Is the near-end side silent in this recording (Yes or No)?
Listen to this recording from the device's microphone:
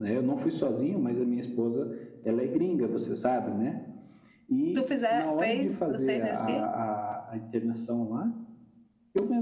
No